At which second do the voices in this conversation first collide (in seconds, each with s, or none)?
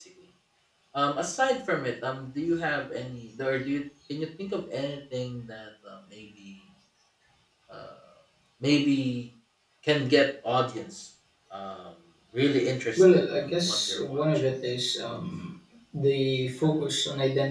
13.0 s